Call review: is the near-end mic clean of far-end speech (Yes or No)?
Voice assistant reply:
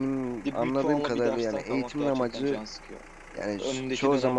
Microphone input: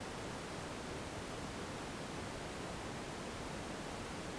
Yes